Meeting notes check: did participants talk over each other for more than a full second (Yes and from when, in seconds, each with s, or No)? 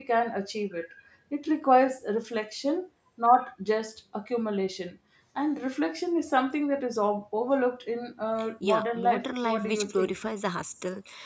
Yes, from 8.6 s